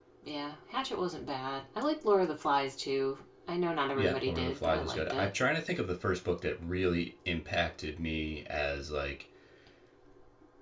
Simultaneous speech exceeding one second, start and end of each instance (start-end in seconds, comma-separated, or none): 3.9-5.3